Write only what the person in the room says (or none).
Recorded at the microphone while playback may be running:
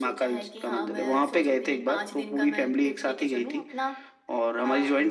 none